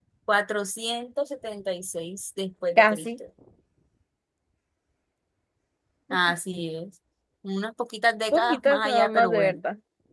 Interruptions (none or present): present